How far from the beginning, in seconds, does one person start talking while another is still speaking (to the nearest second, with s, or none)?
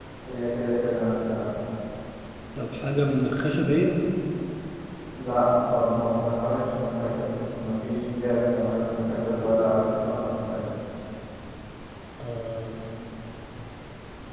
none